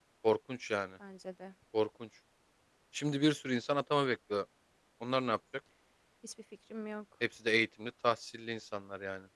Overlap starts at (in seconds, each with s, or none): none